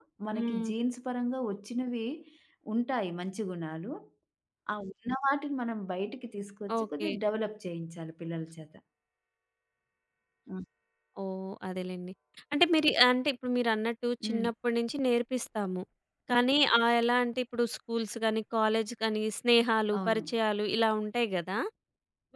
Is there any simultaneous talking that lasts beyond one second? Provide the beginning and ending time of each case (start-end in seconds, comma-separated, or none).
none